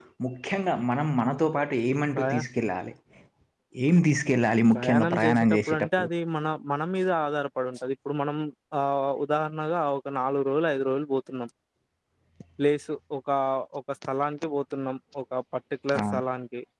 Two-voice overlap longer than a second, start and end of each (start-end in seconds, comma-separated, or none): 4.7-6.1